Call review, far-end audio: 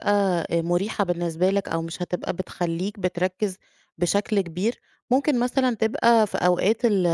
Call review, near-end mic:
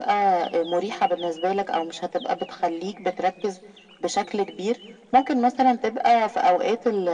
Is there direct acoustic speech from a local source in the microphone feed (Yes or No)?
No